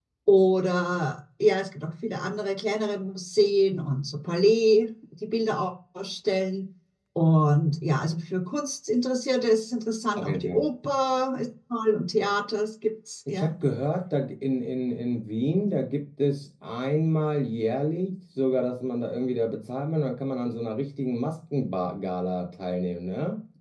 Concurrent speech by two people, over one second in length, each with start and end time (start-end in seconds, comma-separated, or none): none